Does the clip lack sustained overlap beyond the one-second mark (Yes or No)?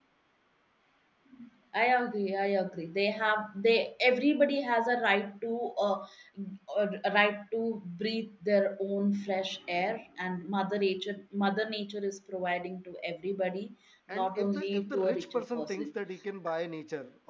No